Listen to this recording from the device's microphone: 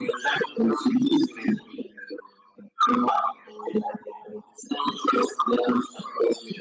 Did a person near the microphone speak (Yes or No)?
No